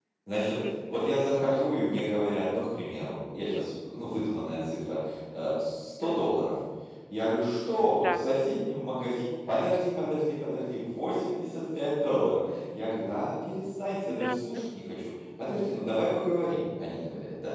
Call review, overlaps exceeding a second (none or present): none